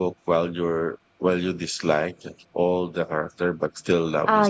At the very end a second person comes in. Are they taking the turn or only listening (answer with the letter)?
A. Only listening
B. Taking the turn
B